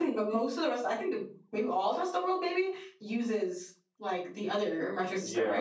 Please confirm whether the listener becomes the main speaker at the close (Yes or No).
Yes